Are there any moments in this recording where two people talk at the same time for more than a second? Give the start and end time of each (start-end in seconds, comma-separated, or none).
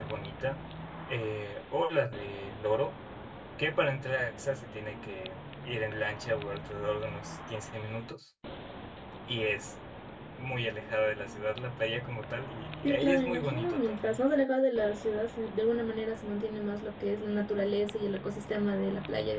12.8-14.2